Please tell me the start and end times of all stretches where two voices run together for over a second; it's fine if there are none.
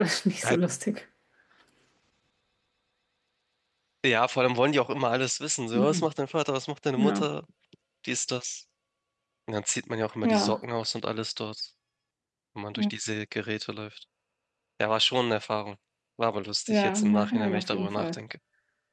16.7-18.2

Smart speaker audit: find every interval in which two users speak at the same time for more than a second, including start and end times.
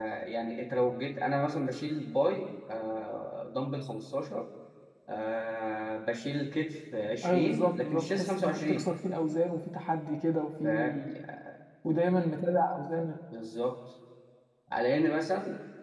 7.2-8.9

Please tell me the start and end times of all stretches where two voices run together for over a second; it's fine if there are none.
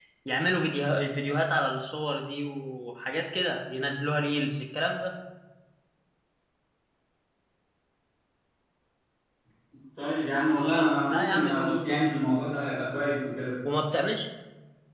10.5-12.1

